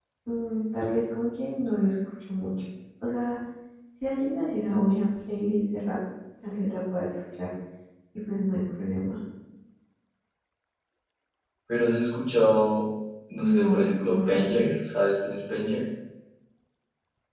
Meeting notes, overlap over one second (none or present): present